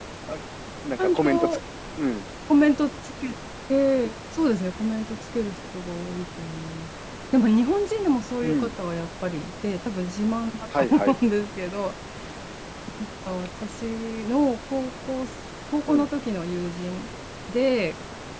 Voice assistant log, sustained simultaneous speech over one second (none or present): none